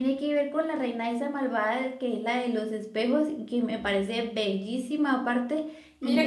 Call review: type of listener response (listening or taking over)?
taking over